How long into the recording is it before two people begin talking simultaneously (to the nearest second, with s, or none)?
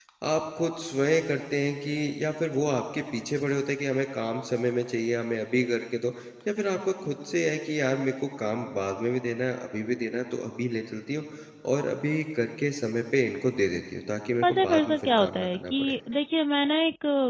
14 s